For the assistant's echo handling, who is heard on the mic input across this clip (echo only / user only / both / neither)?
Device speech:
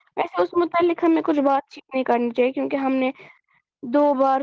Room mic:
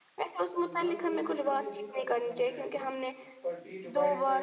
both